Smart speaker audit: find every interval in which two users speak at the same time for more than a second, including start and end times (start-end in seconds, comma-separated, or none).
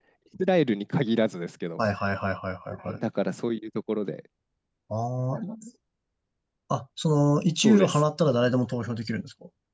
none